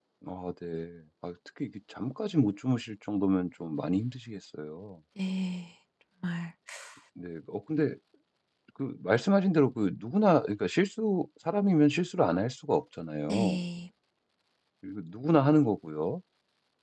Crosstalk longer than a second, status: none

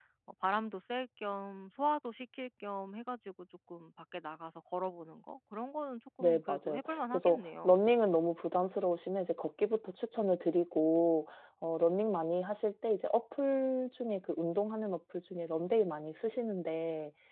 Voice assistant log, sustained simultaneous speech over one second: present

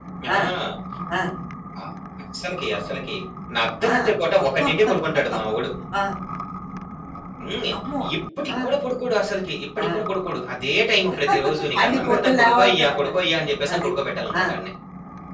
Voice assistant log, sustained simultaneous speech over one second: present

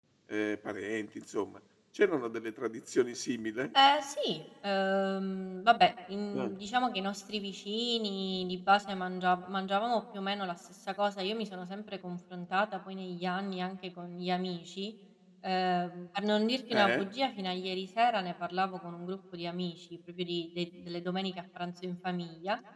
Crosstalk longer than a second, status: none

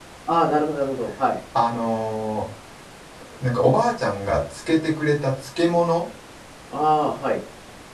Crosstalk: none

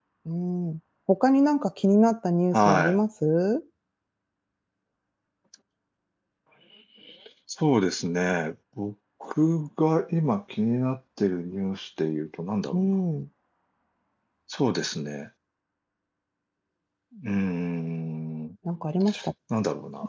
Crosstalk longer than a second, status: none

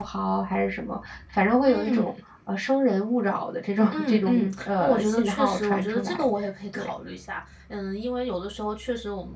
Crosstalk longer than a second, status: present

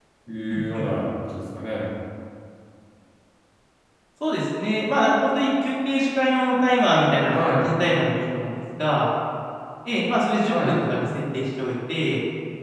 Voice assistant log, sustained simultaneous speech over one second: none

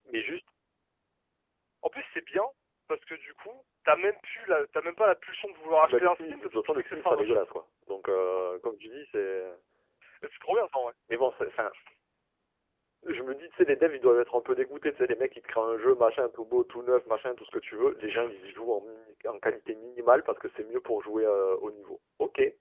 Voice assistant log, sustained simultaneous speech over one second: present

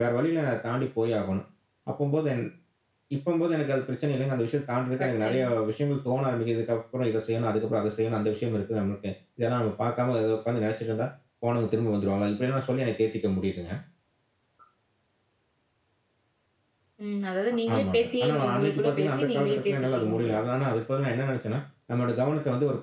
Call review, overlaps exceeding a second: present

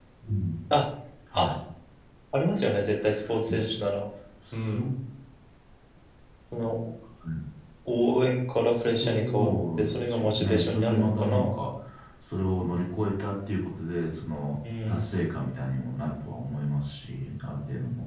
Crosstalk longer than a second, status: present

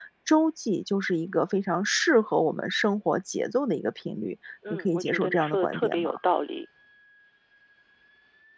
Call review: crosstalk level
present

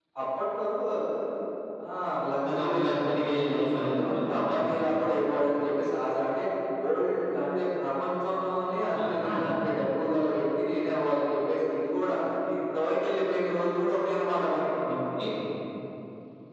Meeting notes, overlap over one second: present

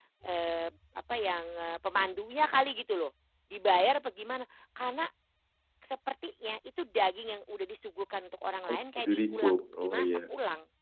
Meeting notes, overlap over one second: present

